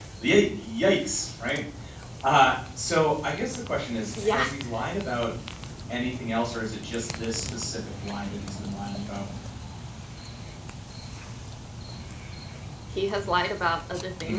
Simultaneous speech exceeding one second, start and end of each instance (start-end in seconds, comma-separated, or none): none